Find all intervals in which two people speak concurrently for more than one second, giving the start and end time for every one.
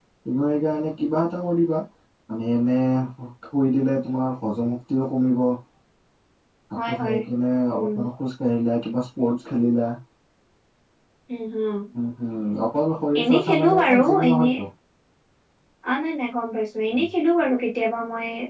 13.2-14.5

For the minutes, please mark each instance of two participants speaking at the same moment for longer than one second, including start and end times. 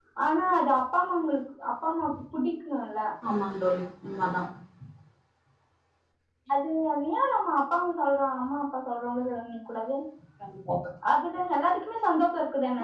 none

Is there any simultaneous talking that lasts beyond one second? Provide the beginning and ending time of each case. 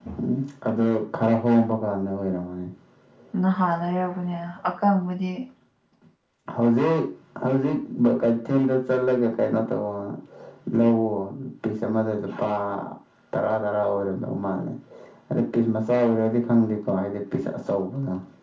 none

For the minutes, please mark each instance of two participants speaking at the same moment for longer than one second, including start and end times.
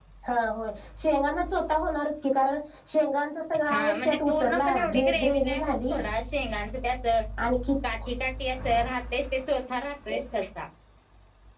3.7-6.0

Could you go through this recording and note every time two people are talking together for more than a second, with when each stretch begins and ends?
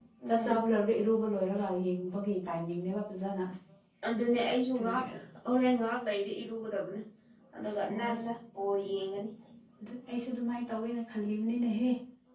none

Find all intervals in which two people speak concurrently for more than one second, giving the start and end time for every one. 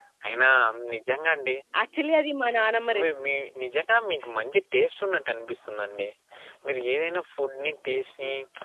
none

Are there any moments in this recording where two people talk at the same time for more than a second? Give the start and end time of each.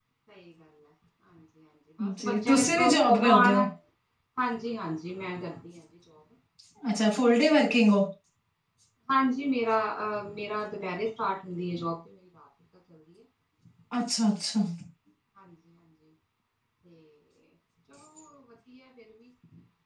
2.2-3.6

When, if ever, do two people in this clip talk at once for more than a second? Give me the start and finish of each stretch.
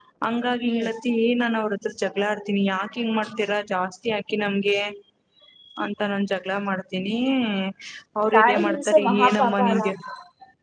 8.3-9.8

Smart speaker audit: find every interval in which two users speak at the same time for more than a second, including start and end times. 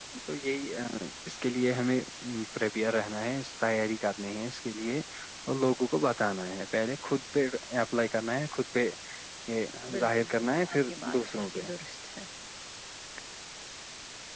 10.0-11.6

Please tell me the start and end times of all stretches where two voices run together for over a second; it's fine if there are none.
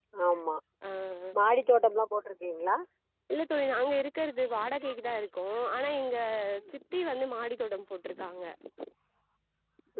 none

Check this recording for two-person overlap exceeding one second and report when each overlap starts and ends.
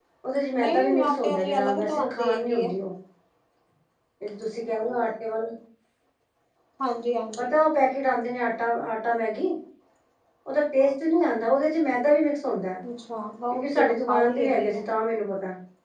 0.6-2.7, 13.5-14.8

